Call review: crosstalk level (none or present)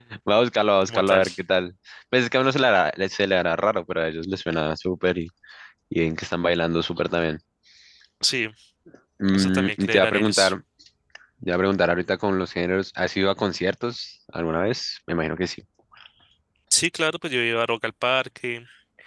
present